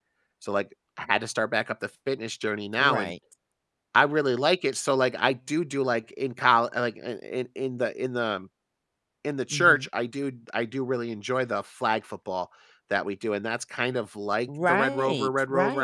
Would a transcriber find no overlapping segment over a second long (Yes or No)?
No